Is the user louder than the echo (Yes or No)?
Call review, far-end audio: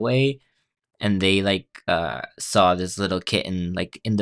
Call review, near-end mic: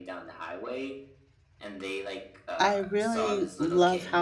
Yes